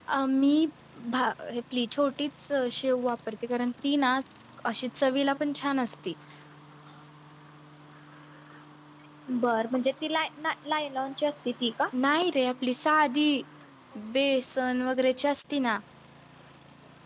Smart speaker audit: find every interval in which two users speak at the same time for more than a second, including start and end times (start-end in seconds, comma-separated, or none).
none